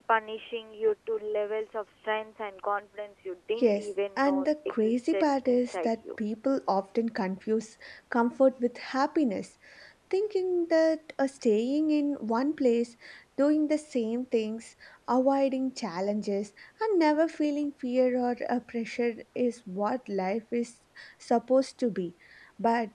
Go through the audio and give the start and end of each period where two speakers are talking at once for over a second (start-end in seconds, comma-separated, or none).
3.6-5.9